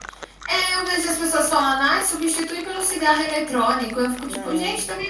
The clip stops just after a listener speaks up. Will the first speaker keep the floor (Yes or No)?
Yes